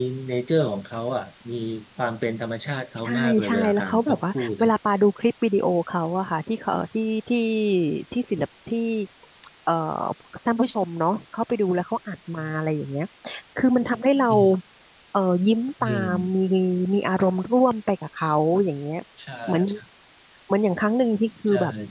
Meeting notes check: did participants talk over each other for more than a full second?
Yes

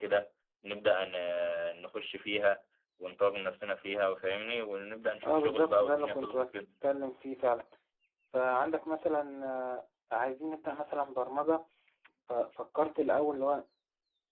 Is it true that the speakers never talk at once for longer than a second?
No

